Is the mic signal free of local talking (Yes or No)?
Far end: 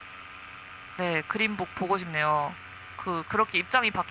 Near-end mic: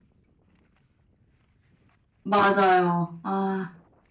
No